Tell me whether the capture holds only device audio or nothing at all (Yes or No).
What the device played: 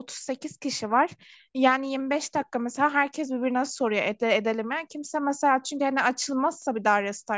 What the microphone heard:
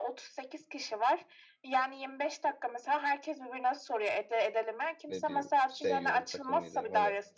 No